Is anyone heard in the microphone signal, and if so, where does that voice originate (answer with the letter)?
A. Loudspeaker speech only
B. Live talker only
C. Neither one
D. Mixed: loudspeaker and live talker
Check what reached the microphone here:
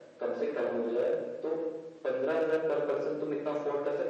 A